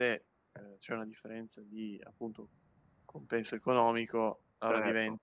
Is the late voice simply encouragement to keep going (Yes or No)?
Yes